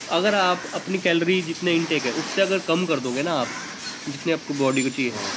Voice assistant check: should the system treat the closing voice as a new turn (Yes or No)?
No